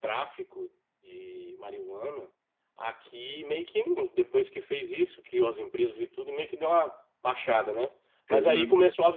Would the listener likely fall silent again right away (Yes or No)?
Yes